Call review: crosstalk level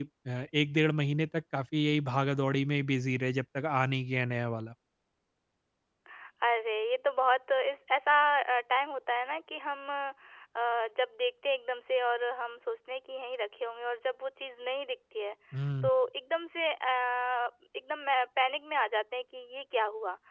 none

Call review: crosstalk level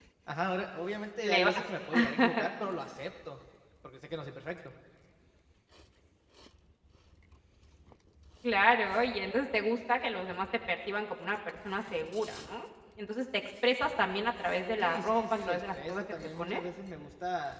present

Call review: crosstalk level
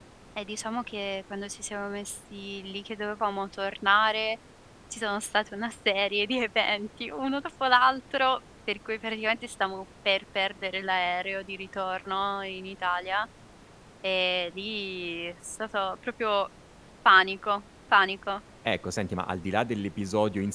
none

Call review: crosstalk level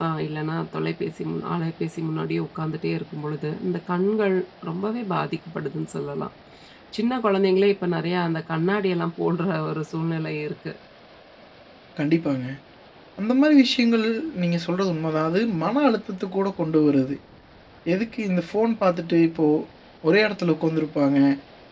none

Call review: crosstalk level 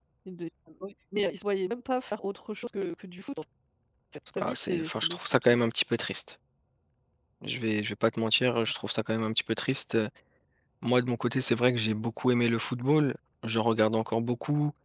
present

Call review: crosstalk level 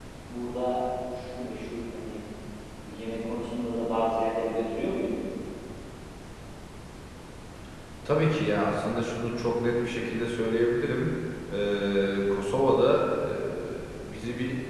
none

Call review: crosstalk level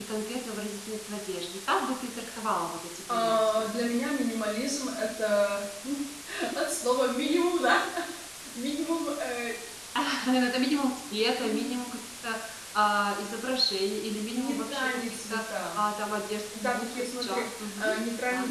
present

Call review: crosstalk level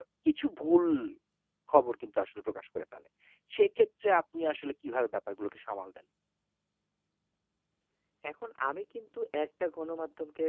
none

